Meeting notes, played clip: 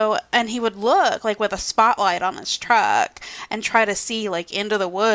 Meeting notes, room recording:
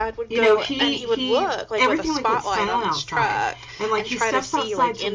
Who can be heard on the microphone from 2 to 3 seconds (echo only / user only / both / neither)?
both